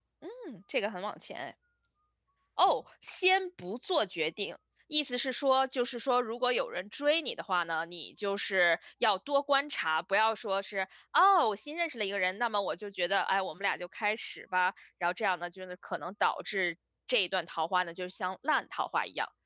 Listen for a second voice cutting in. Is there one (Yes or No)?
No